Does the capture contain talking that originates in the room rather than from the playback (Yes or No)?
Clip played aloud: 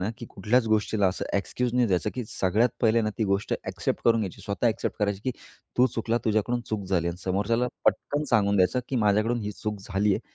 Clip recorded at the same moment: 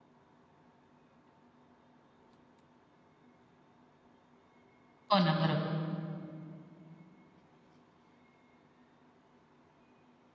Yes